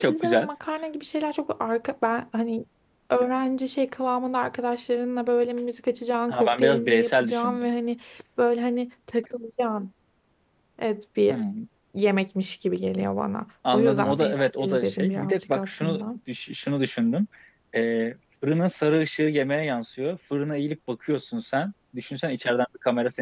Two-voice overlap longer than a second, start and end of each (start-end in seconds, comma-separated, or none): 6.3-7.7, 13.7-16.0